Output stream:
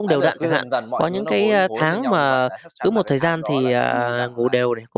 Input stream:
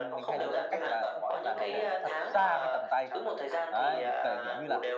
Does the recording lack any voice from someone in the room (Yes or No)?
No